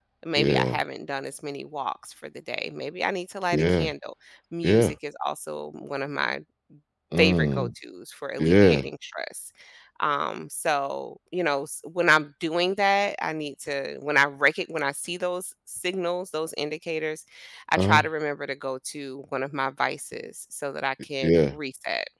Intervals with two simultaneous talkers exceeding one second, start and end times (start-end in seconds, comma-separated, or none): none